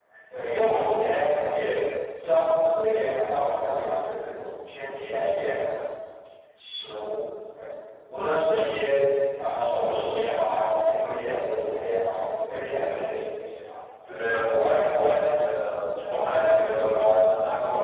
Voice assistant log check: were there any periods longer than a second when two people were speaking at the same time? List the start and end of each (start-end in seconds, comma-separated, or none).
none